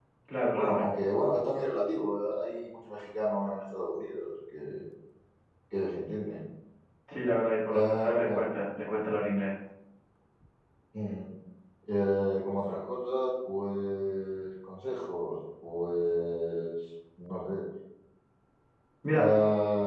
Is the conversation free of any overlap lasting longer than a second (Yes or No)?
Yes